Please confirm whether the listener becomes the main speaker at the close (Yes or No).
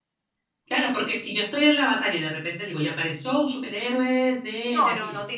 Yes